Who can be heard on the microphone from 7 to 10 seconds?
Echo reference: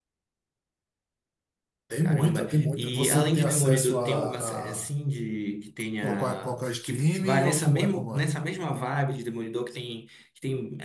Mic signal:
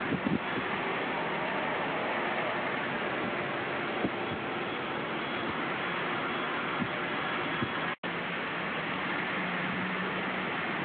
neither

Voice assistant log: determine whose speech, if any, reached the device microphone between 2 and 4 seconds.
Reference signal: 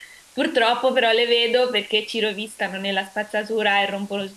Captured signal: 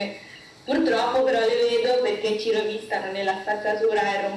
echo only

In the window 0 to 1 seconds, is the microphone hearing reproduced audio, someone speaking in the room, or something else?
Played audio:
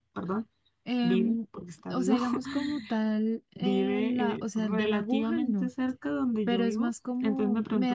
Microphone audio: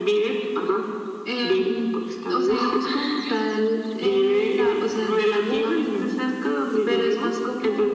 echo only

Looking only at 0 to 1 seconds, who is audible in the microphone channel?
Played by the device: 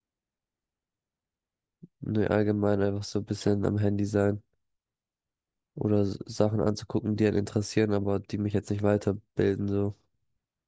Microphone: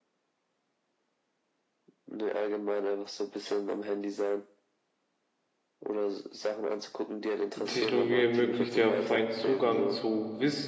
neither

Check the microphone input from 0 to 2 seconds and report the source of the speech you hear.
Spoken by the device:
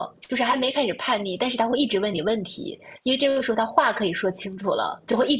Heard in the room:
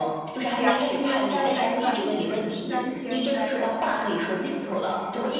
both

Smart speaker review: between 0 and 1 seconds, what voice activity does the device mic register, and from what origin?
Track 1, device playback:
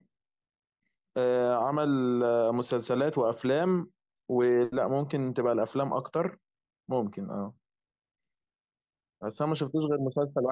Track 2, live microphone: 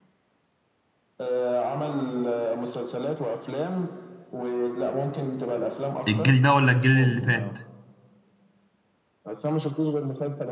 neither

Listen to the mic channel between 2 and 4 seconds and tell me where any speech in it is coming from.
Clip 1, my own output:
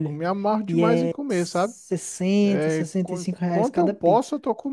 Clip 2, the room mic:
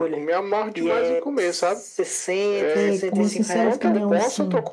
both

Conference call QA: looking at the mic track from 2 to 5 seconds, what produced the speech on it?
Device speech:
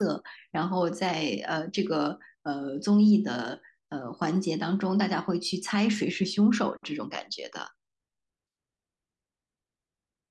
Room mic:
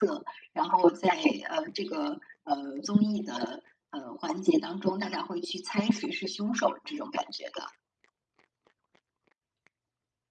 echo only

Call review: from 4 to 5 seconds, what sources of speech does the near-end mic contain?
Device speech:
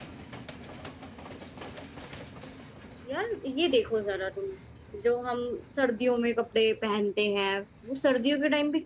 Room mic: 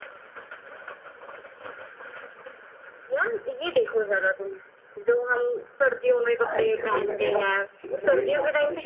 echo only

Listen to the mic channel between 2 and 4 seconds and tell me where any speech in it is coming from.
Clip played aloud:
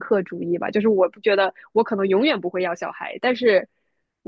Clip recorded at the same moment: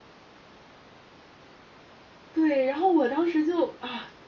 user only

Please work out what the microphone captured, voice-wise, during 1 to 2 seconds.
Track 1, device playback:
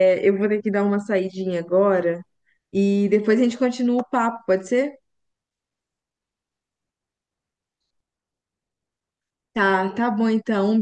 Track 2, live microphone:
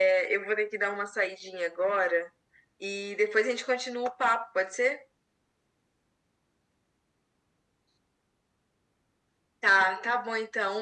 echo only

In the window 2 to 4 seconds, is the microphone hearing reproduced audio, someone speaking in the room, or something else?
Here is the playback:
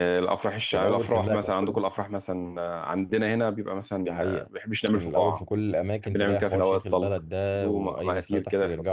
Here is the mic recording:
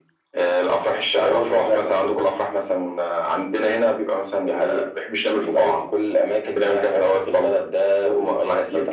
echo only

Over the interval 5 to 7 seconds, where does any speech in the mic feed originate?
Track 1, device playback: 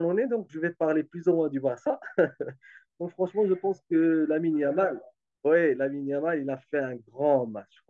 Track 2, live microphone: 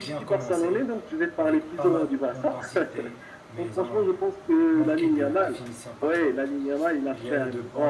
both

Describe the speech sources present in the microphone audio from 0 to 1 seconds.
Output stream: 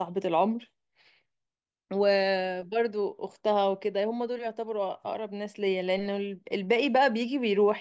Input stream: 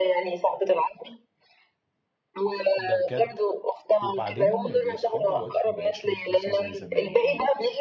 echo only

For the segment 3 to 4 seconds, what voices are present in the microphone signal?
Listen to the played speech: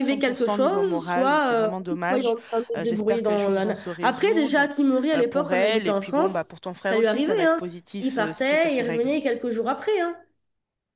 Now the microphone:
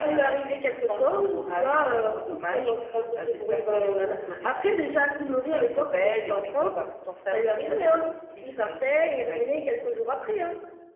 echo only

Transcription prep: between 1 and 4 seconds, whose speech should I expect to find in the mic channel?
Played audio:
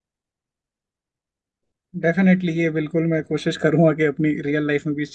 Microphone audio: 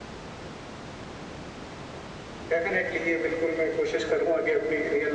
echo only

